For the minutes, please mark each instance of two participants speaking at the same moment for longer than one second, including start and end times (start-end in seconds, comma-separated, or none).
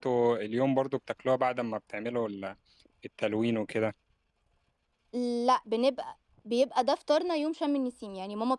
none